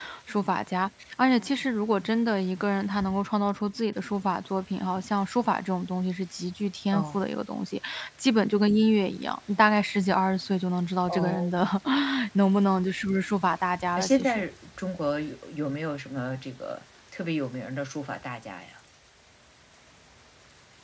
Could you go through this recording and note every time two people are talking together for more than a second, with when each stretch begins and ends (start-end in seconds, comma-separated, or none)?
none